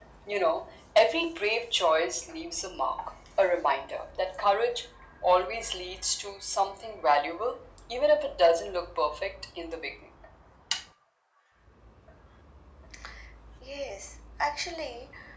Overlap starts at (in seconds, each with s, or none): none